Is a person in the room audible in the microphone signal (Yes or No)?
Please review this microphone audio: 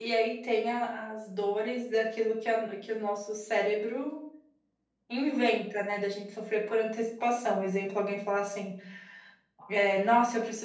Yes